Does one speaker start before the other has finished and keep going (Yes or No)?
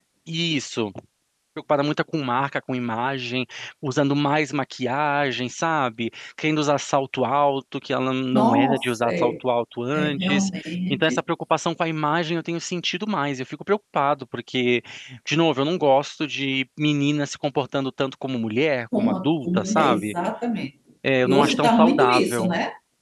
Yes